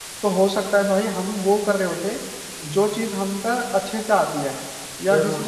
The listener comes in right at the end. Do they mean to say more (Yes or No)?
Yes